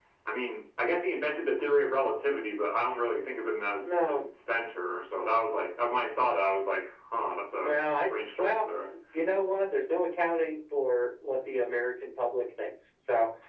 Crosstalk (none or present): present